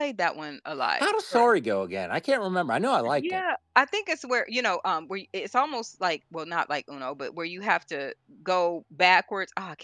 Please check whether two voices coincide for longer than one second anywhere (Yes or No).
No